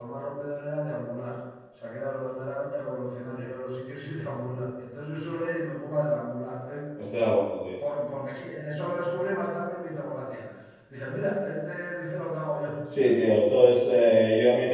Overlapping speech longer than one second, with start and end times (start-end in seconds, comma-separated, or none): none